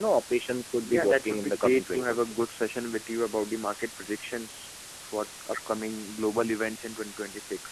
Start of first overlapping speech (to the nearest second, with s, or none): 1 s